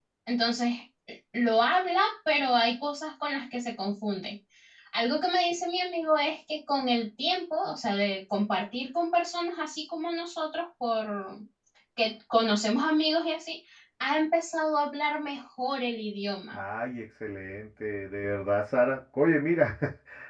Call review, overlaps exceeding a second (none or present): none